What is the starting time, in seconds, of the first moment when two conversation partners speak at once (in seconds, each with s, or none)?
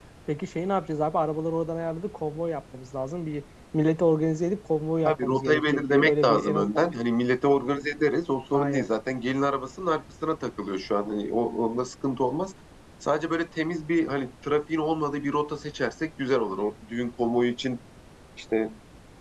5.0 s